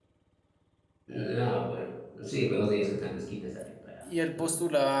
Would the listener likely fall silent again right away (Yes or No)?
No